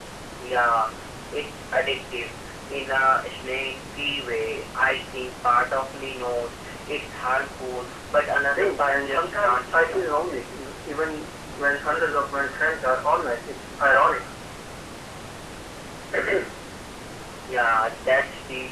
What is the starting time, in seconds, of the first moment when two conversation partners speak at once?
8.5 s

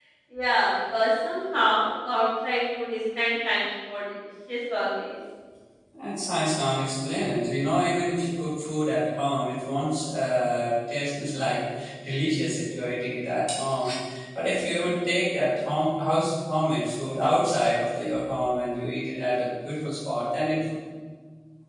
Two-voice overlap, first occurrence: none

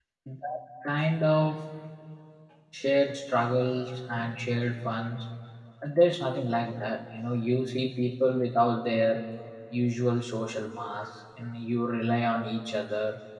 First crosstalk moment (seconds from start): none

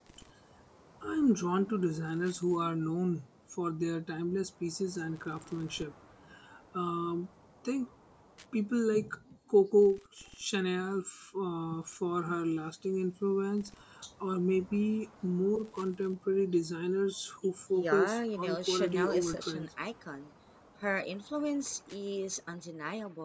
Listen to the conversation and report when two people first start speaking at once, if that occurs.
17.7 s

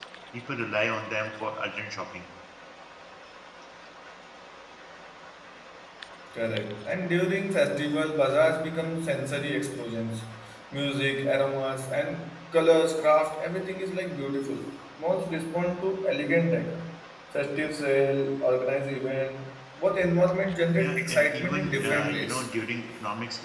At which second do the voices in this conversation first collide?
20.8 s

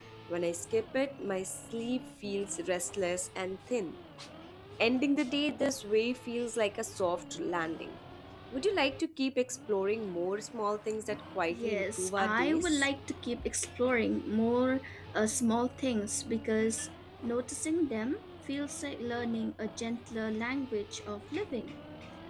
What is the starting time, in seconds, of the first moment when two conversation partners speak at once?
11.5 s

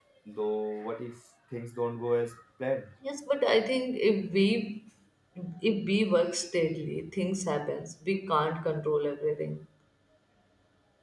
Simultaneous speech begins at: none

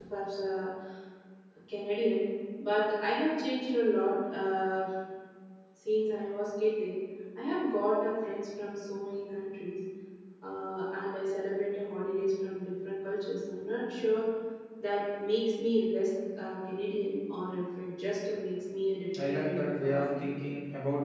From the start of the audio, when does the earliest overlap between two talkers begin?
19.1 s

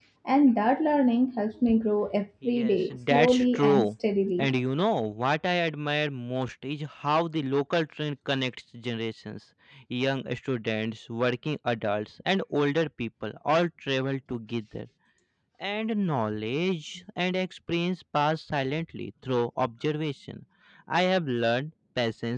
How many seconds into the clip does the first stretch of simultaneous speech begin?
2.4 s

